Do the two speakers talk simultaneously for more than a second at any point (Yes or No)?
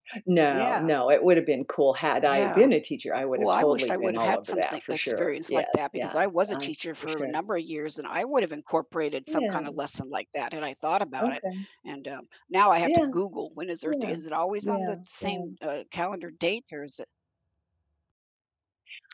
Yes